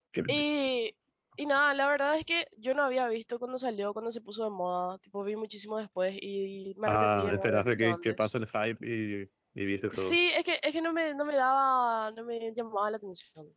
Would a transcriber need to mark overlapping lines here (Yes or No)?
Yes